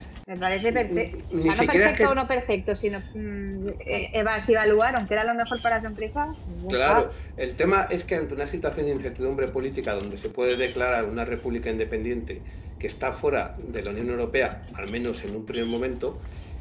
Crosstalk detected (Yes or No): Yes